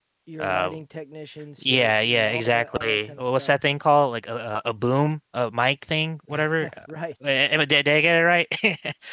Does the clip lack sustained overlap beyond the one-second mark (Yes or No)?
No